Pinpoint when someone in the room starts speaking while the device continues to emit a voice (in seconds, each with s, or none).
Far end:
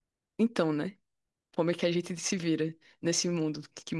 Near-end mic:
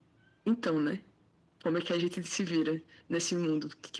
none